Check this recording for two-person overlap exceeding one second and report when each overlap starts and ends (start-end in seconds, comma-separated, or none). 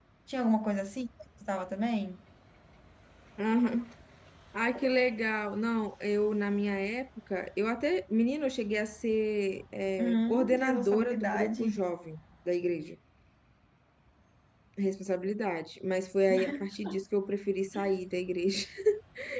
10.0-11.6